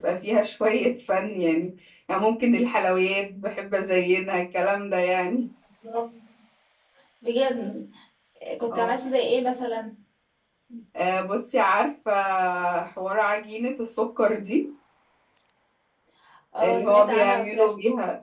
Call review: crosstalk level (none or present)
present